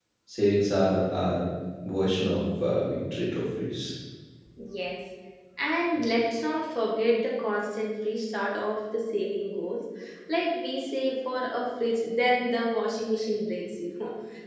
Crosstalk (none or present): none